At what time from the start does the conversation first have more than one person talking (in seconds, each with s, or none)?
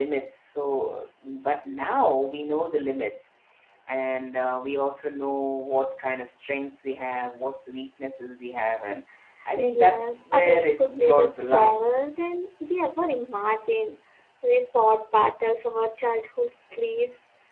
9.6 s